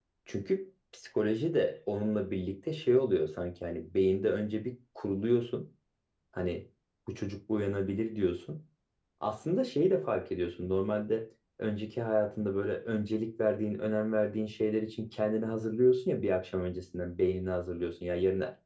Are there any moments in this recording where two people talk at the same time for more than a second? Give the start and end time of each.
none

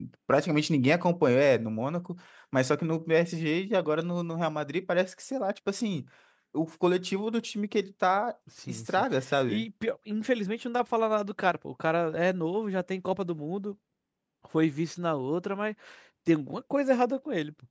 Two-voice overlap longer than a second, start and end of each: none

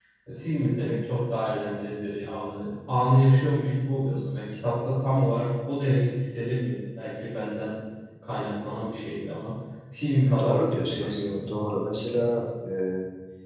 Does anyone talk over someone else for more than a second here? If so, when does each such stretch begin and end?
10.4-12.3

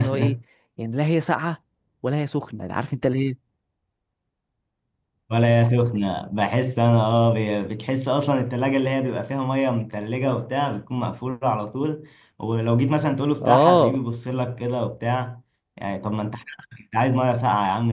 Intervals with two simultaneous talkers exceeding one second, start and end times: none

